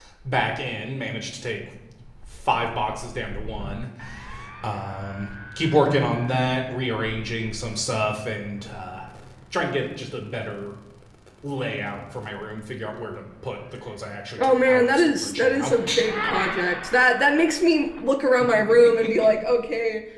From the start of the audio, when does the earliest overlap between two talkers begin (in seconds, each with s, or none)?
14.4 s